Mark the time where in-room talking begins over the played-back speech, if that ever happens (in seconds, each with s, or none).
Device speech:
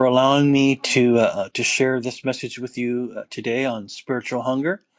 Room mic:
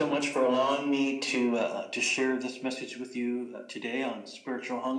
none